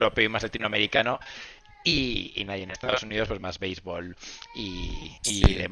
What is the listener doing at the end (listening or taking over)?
listening